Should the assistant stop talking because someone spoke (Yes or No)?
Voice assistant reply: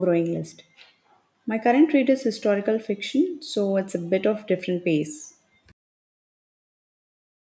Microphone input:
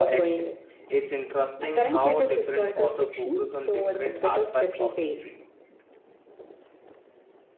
Yes